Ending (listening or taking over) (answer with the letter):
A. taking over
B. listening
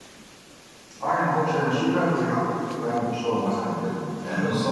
B